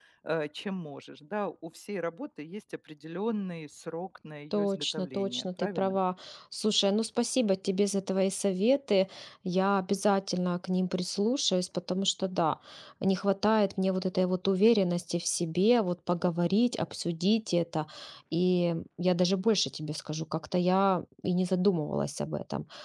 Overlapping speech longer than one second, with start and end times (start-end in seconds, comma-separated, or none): 4.5-6.0